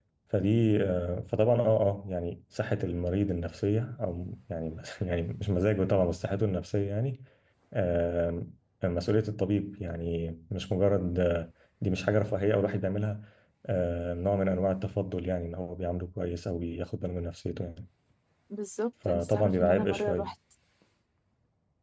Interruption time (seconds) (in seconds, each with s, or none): 19.1 s